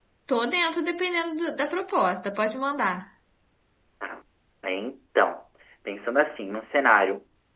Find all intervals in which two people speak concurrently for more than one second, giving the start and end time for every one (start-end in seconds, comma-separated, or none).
none